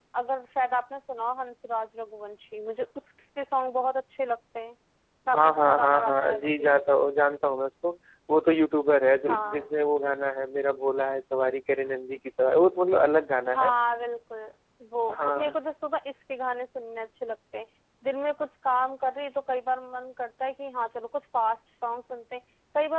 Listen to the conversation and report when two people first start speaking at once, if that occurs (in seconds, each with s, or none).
5.3 s